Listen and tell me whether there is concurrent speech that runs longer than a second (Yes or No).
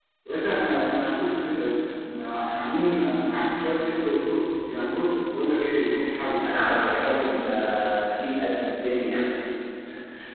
No